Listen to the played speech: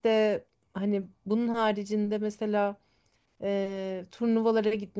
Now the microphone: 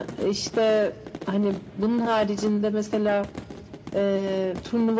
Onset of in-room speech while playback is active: none

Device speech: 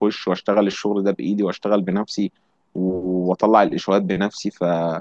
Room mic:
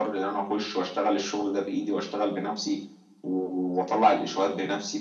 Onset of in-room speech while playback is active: none

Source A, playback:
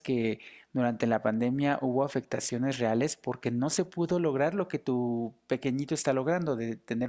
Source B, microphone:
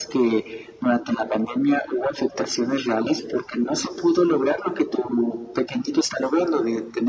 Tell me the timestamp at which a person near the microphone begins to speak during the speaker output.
none

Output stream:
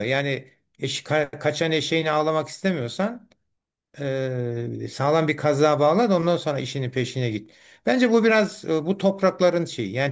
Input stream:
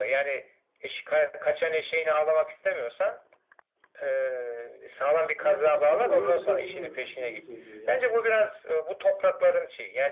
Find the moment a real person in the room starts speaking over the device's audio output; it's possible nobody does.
5 s

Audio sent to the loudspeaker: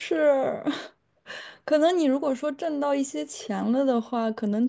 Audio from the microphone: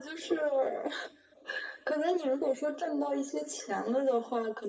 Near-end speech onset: none

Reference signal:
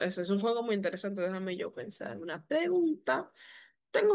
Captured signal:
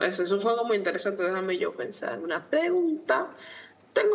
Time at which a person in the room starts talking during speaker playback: none

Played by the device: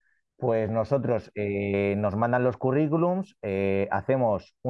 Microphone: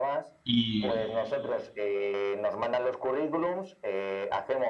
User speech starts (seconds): 0 s

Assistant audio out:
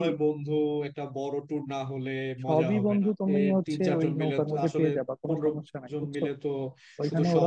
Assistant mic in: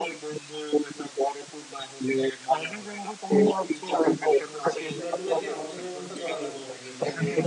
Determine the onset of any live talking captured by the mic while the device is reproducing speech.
5 s

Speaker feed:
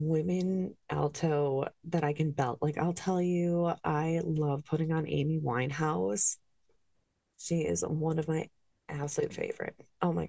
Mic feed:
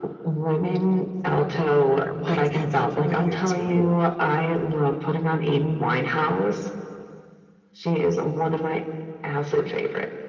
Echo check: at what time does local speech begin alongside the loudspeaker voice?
1 s

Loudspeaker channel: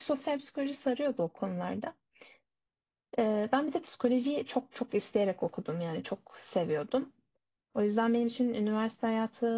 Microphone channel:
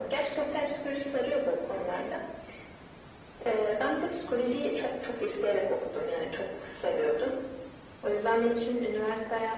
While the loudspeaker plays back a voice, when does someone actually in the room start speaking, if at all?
none

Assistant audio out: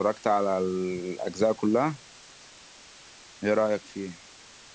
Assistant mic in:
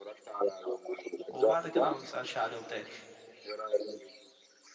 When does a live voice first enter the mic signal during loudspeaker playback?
1 s

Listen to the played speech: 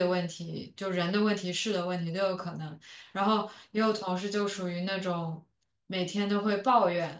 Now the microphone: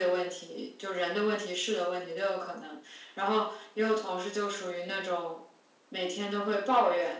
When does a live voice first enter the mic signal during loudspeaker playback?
none

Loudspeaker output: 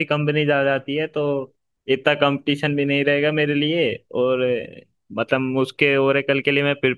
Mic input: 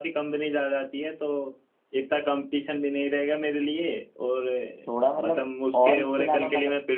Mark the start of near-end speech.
5 s

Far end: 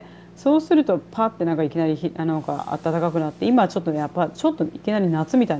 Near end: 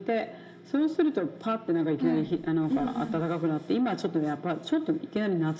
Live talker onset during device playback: 2 s

